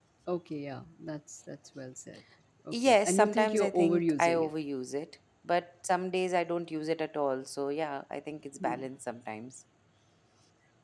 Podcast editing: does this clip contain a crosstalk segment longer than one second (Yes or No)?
Yes